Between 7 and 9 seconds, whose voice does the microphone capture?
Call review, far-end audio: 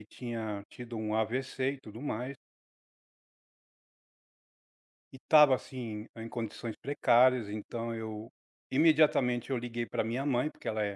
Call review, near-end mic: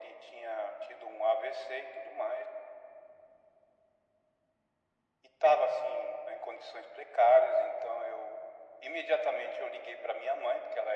echo only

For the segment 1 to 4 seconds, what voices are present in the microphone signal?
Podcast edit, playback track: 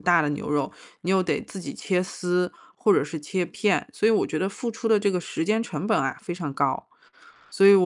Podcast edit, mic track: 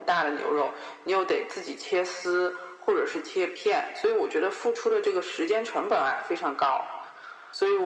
echo only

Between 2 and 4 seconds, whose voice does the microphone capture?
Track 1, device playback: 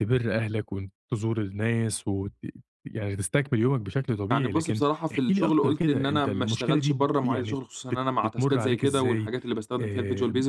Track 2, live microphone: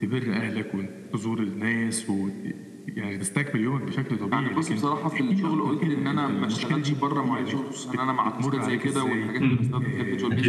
echo only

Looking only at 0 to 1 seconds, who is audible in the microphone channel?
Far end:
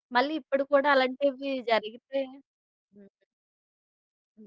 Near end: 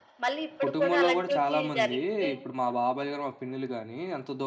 both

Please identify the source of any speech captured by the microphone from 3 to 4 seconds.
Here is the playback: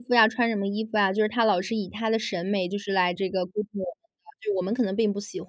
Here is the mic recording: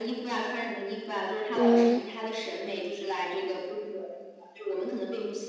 echo only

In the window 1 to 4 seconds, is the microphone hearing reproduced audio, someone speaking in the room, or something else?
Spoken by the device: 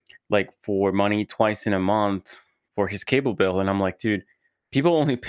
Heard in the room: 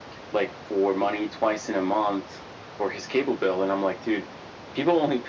echo only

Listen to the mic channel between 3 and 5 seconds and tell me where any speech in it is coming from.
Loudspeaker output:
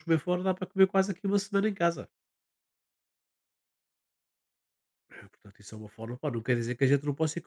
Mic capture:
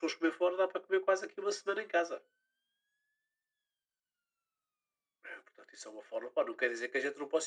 neither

